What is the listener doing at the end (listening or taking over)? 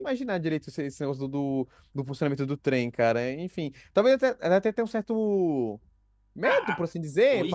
taking over